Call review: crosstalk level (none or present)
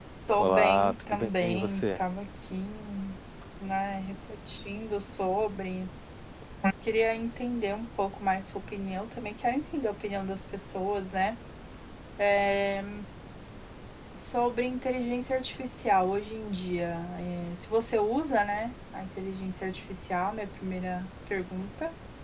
present